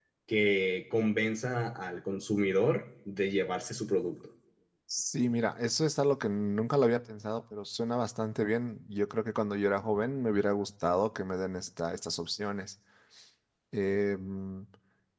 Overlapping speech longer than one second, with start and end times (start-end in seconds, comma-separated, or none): none